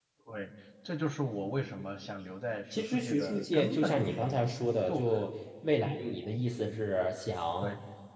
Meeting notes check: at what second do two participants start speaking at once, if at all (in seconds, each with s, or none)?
2.7 s